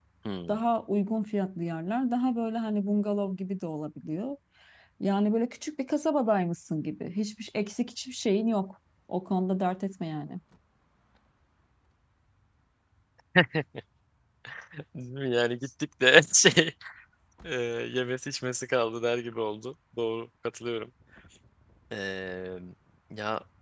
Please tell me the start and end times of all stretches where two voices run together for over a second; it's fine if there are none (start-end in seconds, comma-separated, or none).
none